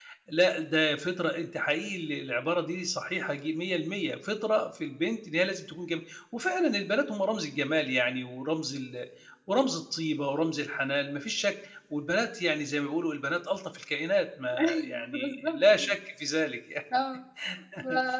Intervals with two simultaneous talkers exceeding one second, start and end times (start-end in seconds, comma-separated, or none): 14.6-15.9